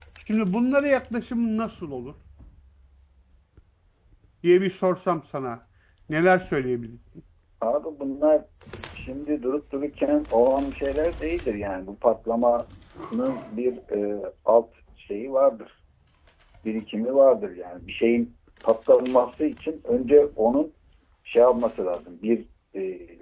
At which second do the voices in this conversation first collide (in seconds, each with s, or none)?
none